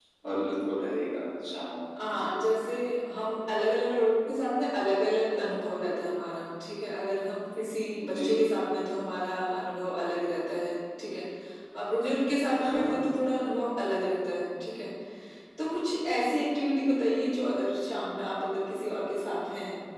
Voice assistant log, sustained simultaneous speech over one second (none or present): none